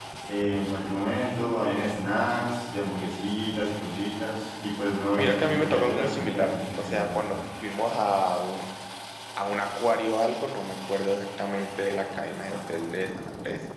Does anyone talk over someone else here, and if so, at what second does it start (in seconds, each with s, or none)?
5.2 s